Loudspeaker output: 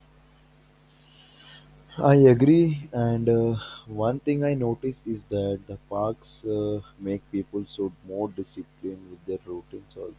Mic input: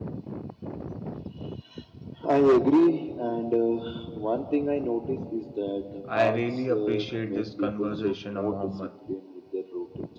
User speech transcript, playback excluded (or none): I really appreciate this conversation, Mohammed.